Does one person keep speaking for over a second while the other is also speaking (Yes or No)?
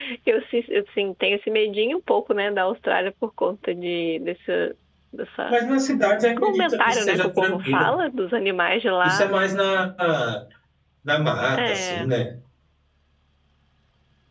Yes